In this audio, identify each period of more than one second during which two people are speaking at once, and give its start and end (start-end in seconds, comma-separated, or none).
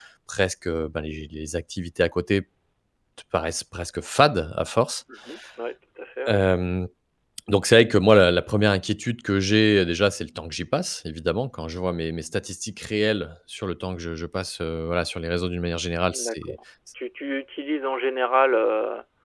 none